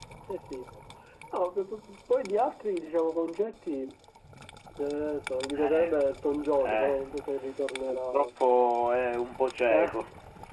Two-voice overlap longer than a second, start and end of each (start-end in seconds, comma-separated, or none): none